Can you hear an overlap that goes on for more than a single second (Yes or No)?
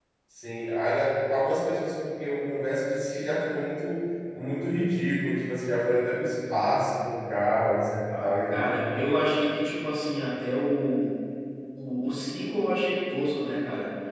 No